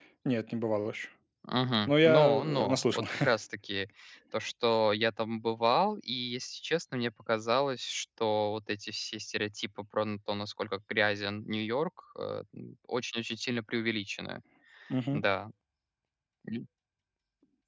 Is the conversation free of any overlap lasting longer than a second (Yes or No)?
No